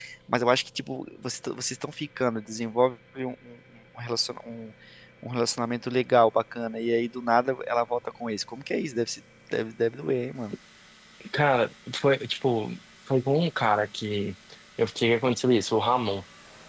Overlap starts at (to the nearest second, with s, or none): none